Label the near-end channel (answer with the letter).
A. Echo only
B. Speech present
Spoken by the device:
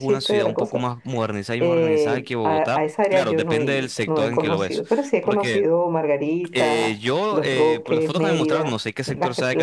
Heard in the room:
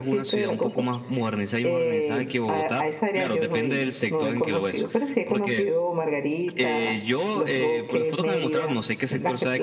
A